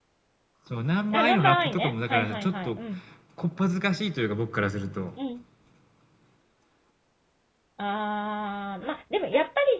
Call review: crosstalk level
present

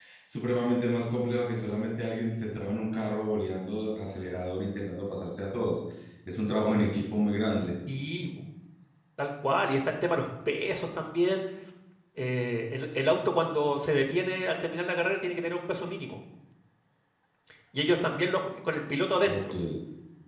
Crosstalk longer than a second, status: none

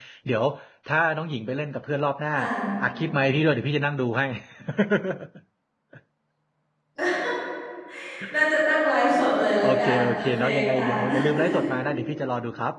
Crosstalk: present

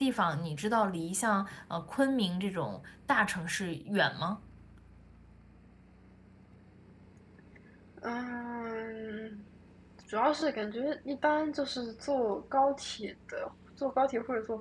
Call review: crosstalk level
none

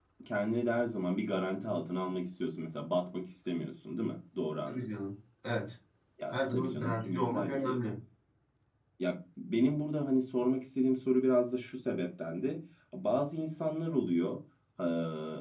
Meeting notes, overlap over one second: present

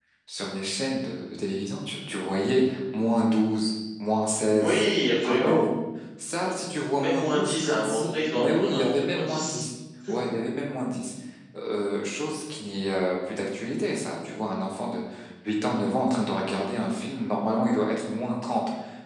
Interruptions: present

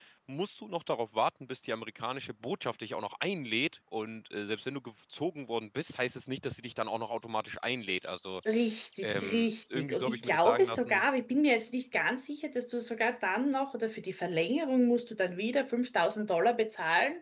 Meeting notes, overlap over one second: present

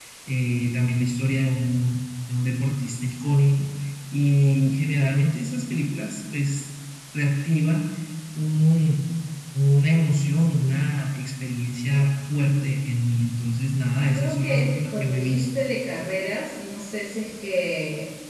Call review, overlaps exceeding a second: present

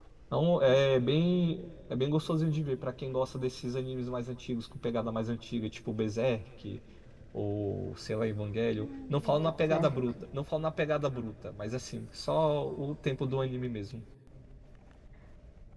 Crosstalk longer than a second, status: present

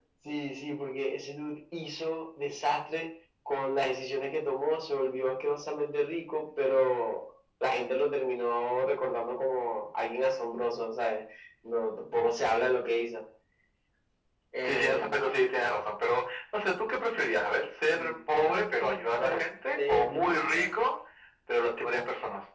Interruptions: present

